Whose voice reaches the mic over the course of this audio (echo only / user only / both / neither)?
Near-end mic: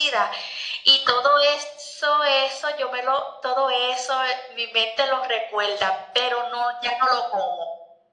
echo only